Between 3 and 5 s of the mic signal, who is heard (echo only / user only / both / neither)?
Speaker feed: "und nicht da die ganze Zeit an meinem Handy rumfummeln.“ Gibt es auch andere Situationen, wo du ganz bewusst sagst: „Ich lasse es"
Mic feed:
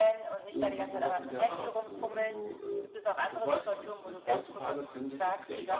both